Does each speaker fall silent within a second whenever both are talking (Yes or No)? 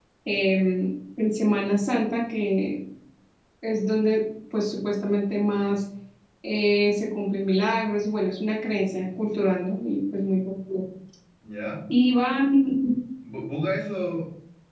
Yes